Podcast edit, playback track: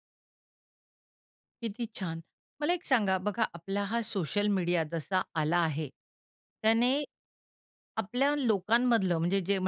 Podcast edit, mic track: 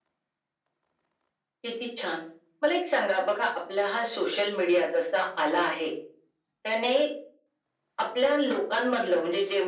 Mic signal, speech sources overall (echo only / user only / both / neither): echo only